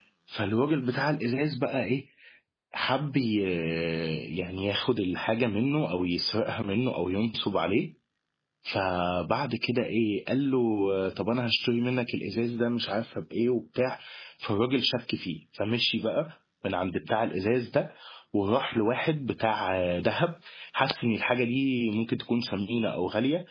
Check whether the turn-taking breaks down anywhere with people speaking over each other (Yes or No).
No